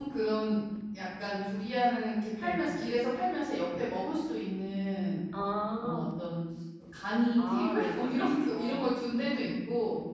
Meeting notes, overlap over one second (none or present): present